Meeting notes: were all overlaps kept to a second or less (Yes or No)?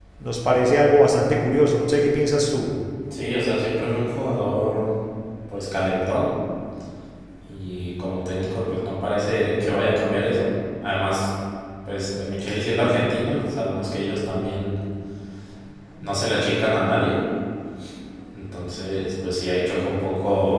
Yes